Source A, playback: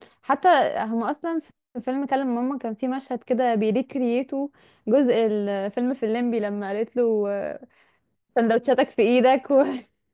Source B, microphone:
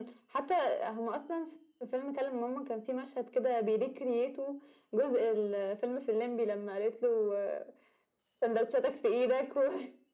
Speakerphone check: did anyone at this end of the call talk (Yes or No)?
No